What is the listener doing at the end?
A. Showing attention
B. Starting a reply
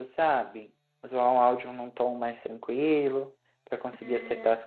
B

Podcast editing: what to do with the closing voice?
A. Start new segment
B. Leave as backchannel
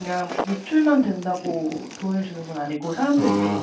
A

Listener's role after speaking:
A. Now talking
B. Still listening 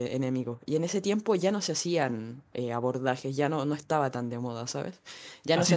A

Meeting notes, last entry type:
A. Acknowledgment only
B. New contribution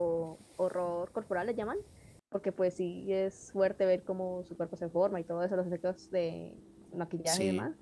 A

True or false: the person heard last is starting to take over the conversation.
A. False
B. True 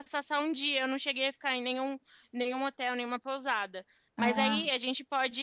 A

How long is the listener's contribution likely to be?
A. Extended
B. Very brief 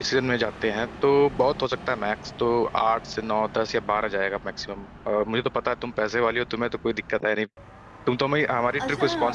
A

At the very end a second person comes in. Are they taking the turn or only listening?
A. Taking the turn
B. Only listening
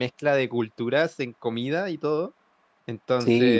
B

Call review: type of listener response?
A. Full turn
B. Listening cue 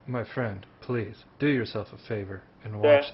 A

